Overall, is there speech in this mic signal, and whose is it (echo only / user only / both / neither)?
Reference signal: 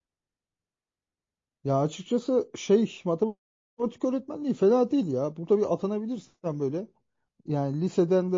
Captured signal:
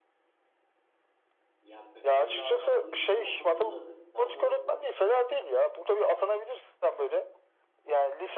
both